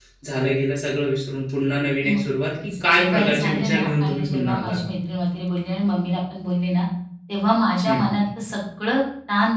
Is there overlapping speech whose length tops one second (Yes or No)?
Yes